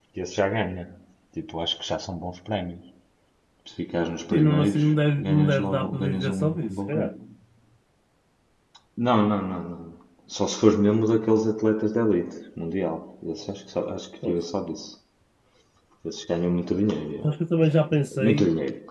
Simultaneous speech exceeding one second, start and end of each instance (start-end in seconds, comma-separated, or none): 4.3-7.1